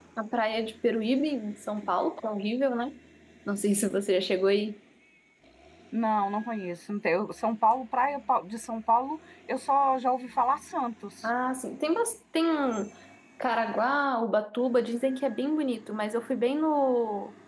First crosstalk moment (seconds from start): none

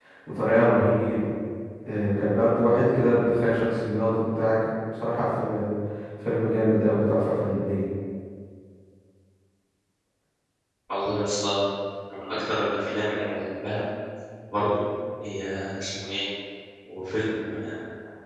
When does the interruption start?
none

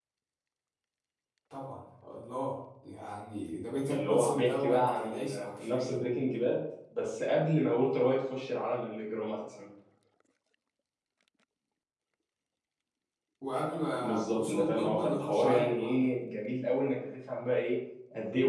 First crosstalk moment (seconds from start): 4 s

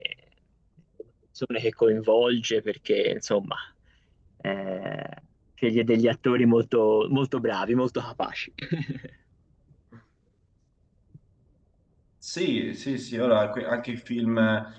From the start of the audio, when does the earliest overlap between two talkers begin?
none

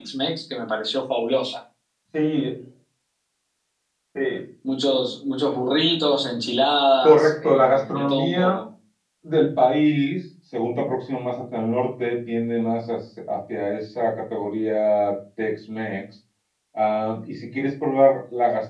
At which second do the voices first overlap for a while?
7 s

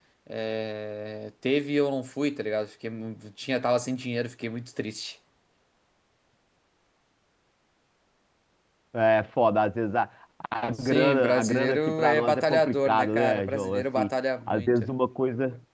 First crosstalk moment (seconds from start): 11 s

